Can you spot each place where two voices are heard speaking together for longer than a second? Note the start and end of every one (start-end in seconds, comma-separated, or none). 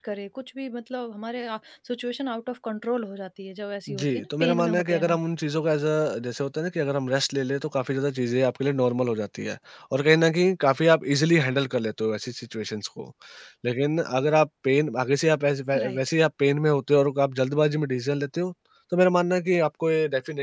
3.9-5.2